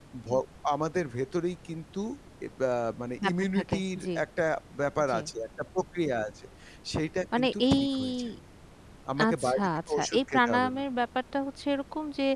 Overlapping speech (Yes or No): Yes